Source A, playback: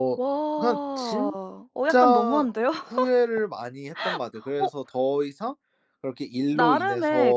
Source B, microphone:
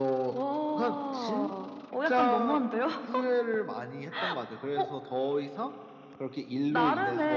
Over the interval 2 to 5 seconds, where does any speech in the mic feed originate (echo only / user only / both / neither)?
echo only